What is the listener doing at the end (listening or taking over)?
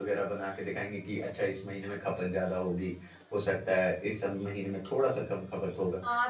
taking over